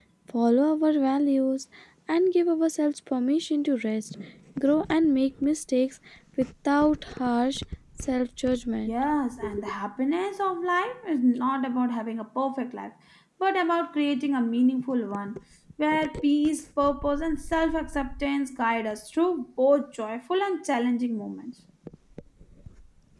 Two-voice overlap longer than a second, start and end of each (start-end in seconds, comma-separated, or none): none